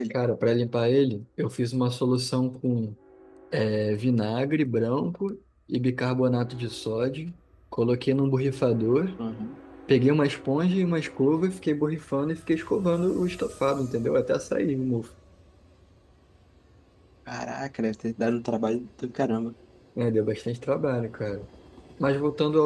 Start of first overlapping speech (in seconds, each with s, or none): none